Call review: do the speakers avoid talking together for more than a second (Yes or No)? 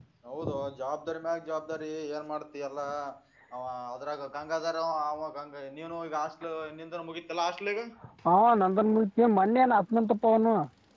Yes